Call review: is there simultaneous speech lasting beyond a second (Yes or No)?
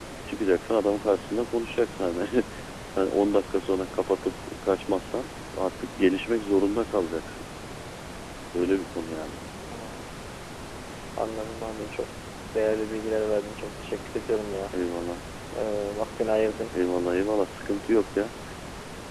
No